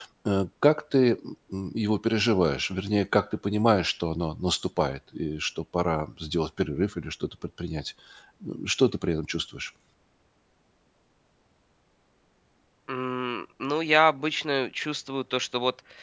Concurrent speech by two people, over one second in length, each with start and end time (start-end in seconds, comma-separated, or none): none